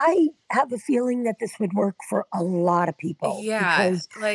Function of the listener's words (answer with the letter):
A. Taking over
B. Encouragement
A